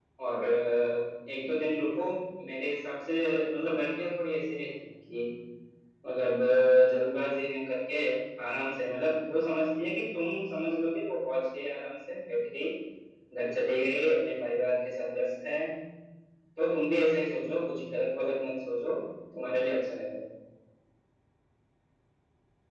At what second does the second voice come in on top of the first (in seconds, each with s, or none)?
none